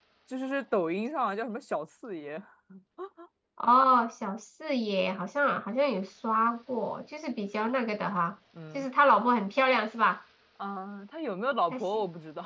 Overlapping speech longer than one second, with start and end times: none

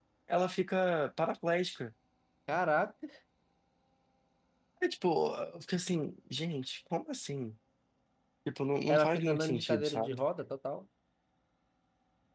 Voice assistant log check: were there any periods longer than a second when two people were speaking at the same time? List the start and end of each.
8.9-10.2

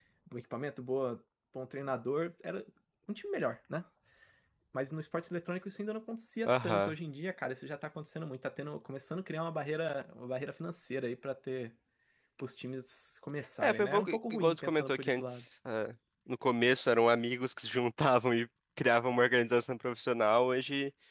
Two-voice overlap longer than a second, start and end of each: 13.6-15.4

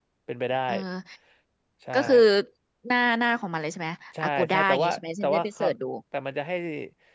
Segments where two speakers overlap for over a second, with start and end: 4.2-5.6

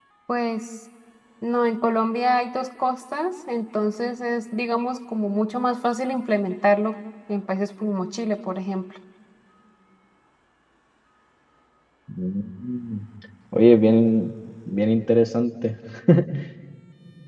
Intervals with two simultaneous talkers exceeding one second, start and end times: none

